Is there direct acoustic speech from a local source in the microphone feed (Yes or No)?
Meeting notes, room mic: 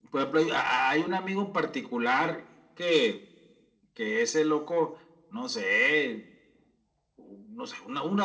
No